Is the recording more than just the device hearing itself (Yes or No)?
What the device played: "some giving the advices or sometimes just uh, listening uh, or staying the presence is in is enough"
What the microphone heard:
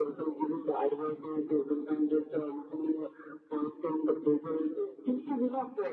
No